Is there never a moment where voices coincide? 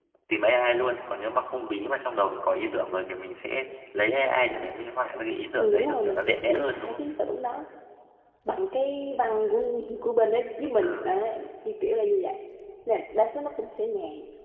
No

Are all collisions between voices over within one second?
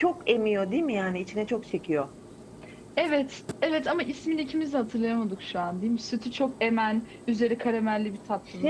Yes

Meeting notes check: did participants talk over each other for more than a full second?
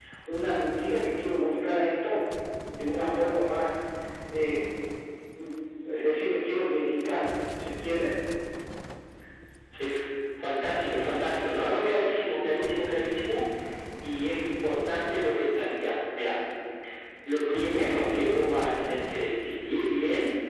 No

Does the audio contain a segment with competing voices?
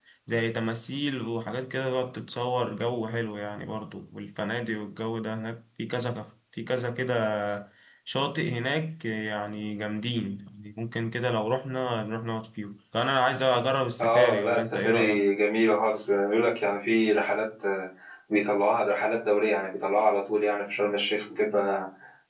Yes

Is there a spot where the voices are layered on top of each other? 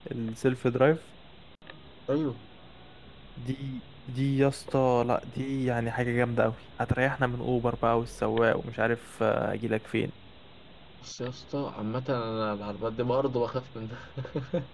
No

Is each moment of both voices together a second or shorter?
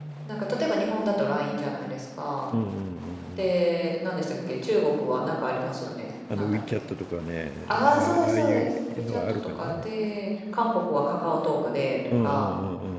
No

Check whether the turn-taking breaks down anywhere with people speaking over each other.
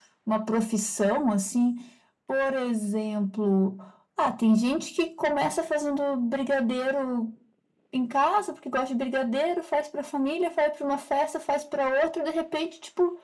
No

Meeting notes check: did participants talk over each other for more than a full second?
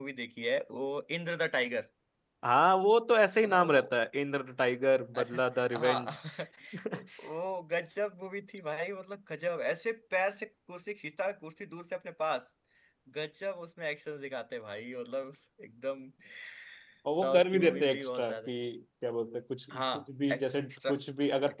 Yes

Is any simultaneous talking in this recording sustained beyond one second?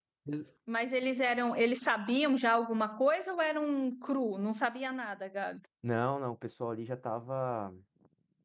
No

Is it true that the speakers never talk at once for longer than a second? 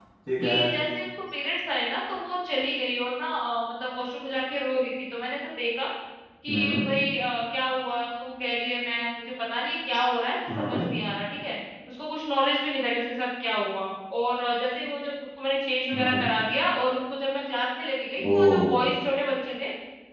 Yes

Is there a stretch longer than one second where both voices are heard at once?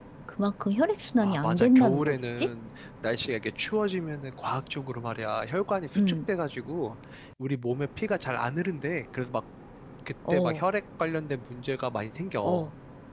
Yes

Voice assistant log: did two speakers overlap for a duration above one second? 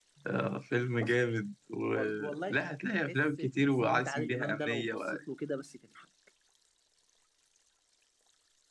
Yes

